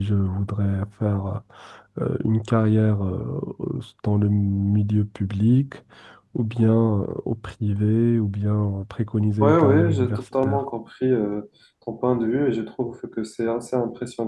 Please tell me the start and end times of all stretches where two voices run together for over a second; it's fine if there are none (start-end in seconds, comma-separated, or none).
9.4-10.6